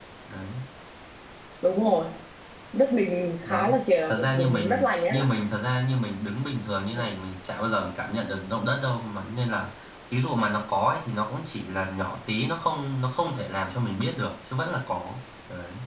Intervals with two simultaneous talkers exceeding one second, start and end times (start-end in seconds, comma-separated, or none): 3.4-5.4